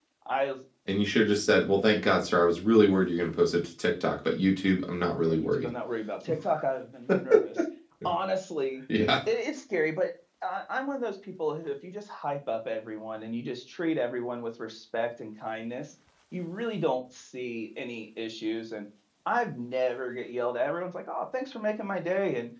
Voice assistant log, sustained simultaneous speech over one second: none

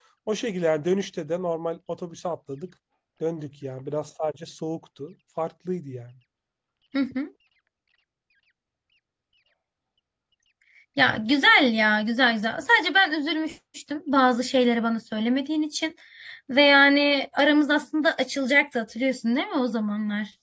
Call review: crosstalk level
none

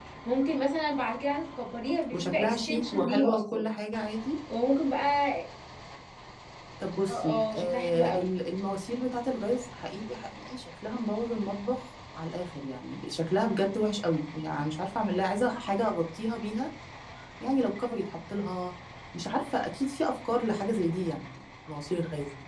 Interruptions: present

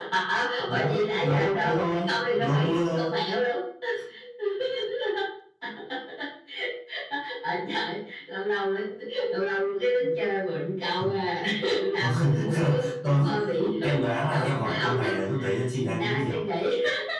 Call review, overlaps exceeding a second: present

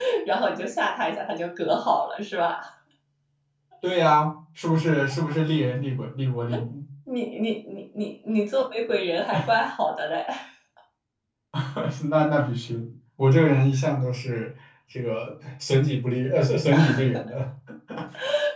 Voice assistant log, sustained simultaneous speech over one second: none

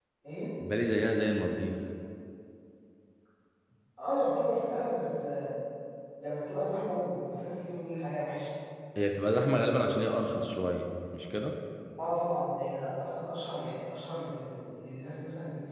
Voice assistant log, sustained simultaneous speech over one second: none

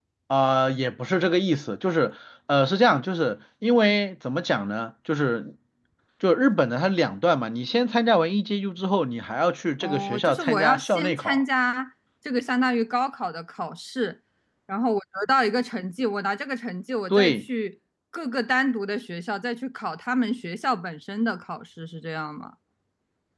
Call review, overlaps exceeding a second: present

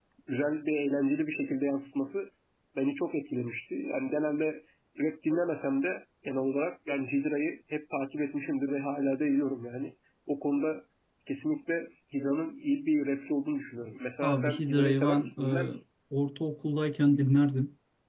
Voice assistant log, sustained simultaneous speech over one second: present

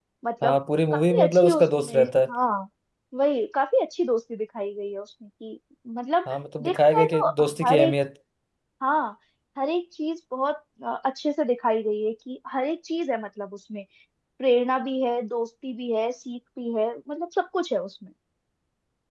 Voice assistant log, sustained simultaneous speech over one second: present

